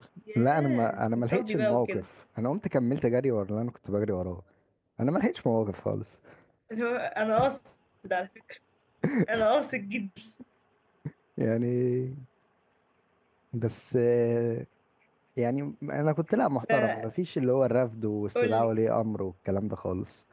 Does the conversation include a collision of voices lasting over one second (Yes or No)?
Yes